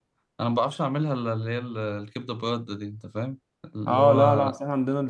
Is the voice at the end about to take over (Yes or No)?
Yes